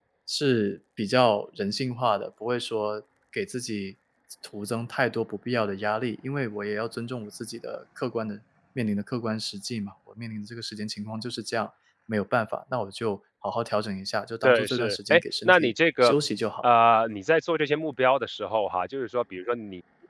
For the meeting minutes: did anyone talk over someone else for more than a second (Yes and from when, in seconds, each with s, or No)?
Yes, from 14.4 s